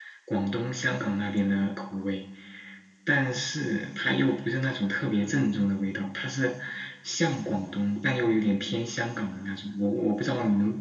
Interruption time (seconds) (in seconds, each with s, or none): none